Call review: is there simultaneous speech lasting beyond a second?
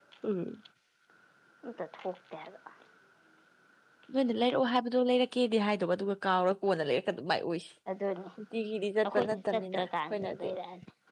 Yes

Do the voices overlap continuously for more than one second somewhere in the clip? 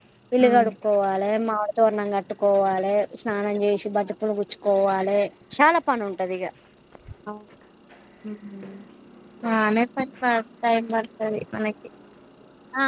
No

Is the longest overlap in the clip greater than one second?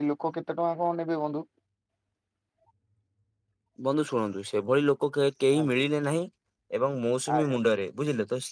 No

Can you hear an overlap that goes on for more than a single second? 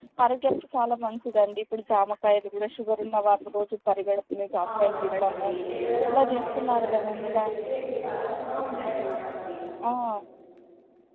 Yes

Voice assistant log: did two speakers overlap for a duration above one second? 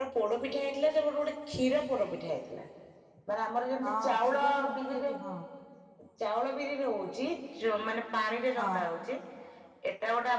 Yes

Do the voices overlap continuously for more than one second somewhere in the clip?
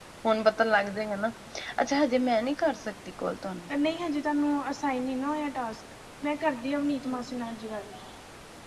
No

